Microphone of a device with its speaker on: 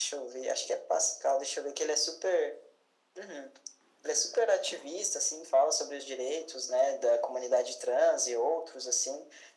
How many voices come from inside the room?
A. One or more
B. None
B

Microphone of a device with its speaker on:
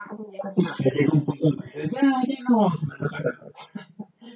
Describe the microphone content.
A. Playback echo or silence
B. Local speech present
A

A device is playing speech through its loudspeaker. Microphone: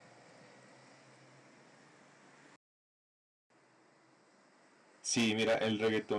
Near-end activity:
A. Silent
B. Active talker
B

